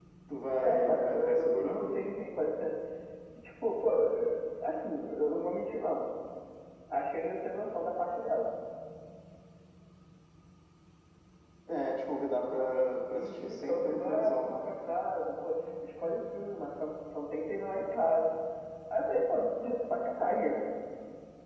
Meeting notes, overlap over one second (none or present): present